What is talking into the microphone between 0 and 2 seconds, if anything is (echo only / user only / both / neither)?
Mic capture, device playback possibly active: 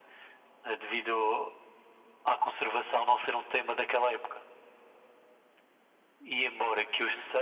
echo only